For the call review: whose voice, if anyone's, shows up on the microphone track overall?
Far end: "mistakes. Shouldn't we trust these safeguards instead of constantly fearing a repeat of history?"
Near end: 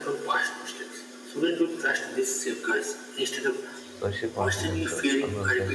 both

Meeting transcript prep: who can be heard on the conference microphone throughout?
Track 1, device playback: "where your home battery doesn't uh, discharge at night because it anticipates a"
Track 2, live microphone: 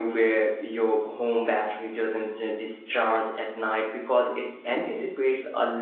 echo only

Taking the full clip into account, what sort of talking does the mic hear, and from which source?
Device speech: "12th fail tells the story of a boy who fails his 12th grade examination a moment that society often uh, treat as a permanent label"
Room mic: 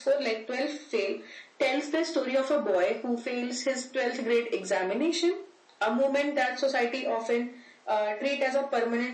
echo only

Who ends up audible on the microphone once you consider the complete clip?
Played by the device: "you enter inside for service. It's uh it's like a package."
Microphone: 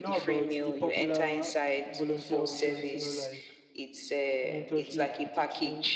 both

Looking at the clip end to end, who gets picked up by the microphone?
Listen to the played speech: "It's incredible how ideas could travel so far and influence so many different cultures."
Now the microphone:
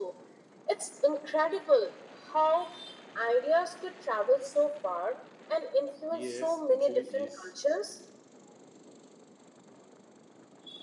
both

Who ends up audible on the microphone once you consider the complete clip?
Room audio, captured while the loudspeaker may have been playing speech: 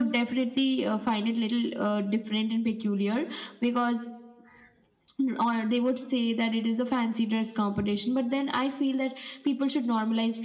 echo only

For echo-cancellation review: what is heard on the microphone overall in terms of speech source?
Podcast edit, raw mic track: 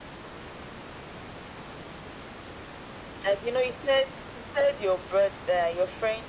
echo only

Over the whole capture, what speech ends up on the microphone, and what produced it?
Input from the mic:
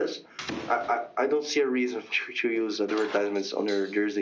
echo only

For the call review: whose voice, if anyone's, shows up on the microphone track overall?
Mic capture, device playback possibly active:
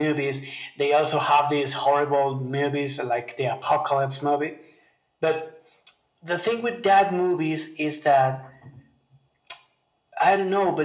echo only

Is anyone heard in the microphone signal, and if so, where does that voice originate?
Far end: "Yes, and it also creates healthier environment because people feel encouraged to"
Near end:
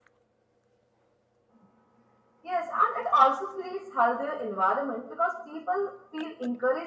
echo only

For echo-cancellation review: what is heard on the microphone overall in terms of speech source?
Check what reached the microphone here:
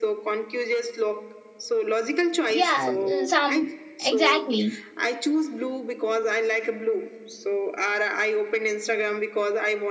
both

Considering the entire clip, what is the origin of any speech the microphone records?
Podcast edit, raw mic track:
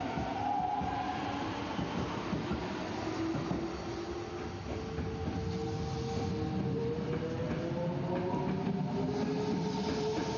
neither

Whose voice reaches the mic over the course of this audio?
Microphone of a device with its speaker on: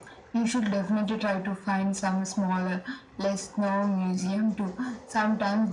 echo only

